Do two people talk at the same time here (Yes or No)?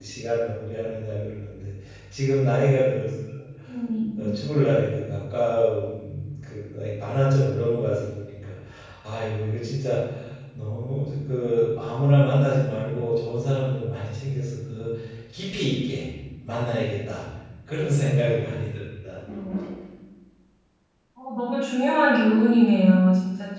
No